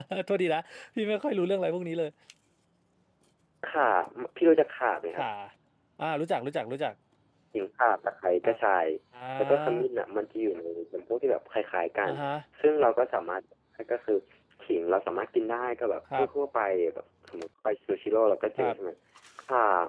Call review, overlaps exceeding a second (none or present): none